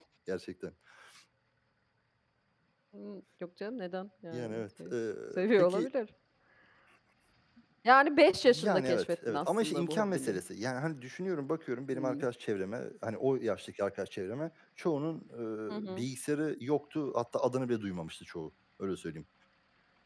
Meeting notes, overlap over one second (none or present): present